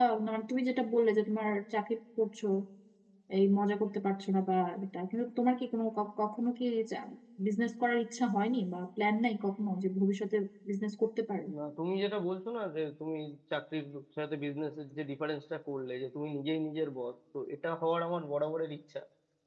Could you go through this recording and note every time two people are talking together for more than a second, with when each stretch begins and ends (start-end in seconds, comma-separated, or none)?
none